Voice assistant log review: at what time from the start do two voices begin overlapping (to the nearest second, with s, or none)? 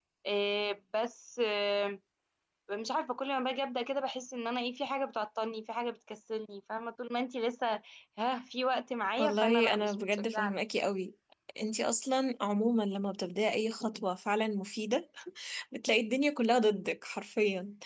9 s